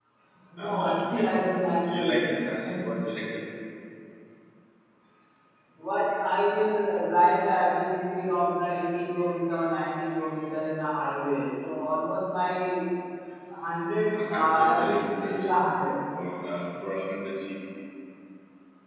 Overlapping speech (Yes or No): Yes